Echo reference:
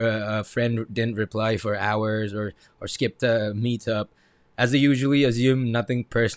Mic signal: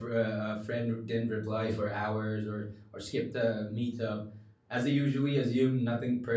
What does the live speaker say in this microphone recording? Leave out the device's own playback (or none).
none